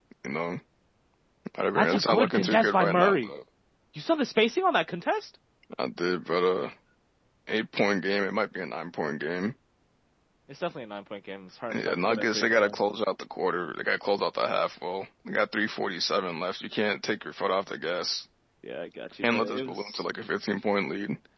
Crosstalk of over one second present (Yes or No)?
Yes